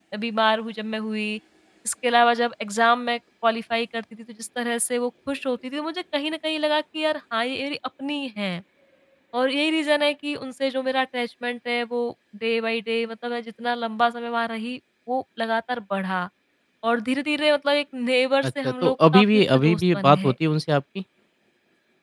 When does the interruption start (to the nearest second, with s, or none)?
18 s